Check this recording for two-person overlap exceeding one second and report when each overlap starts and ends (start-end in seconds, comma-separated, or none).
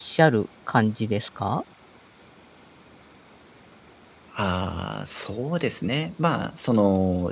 none